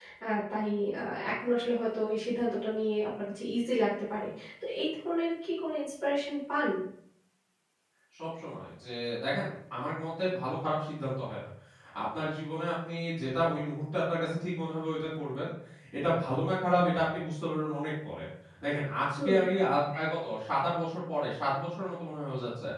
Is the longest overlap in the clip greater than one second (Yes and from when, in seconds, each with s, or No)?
No